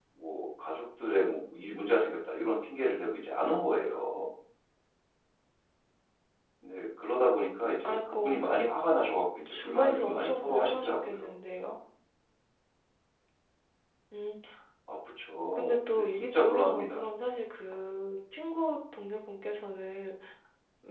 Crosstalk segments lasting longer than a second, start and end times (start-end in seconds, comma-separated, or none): 9.5-11.2, 15.5-17.0